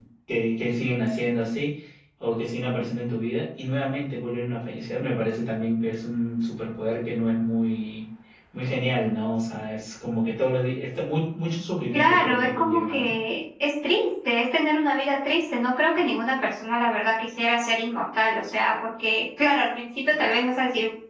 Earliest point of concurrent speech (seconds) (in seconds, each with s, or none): 11.9 s